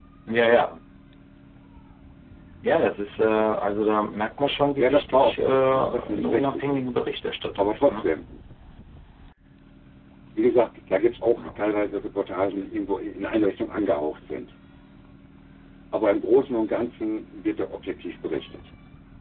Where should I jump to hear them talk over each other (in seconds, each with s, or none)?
4.7 s